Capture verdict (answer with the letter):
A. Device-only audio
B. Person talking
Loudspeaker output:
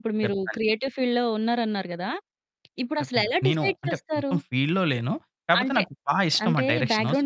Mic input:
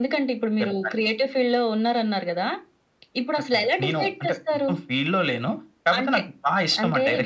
A